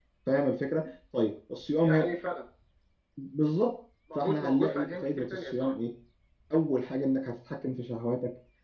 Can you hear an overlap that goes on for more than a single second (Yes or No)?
Yes